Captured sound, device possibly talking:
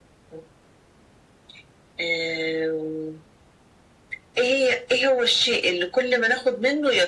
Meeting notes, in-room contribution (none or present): none